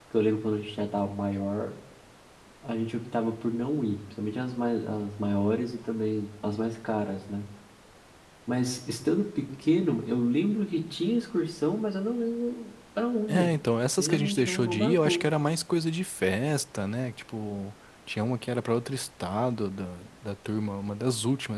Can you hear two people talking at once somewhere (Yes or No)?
Yes